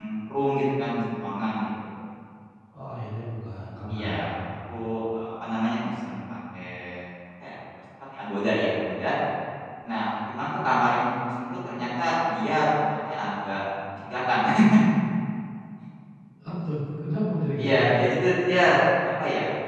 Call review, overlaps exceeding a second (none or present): none